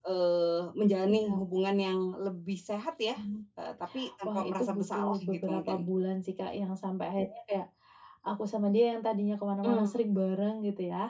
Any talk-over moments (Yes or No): Yes